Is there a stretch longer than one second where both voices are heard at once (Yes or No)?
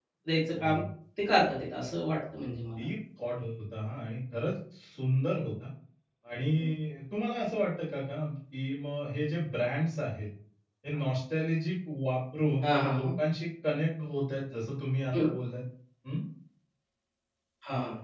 No